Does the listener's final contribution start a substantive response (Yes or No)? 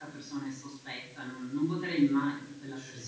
Yes